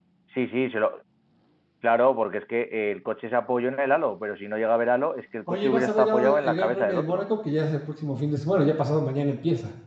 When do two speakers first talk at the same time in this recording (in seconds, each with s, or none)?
5.5 s